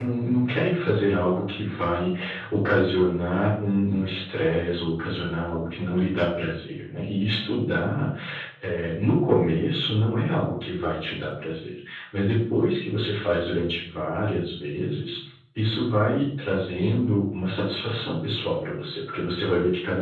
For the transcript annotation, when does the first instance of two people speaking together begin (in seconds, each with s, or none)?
none